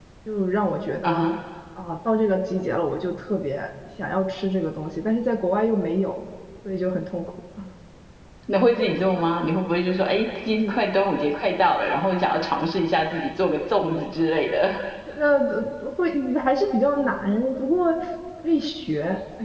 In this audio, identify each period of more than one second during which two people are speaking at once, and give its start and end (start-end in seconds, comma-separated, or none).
none